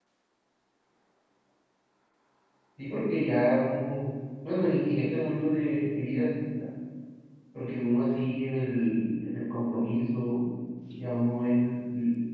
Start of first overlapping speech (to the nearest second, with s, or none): none